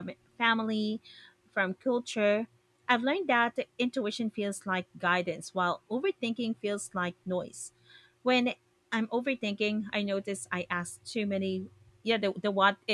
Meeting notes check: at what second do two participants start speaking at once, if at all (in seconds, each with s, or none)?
none